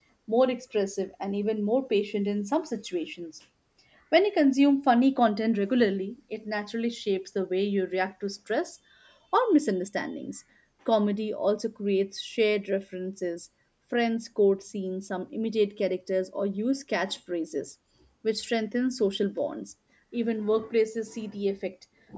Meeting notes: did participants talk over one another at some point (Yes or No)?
No